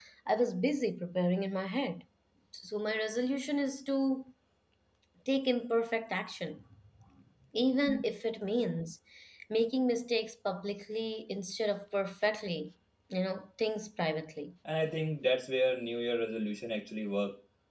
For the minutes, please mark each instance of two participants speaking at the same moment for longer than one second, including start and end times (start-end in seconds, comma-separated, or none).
none